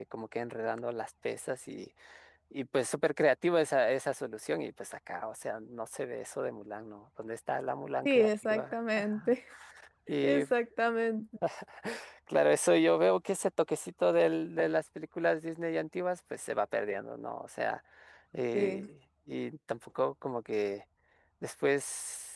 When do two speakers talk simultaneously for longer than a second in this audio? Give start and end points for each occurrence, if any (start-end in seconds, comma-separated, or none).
8.0-9.3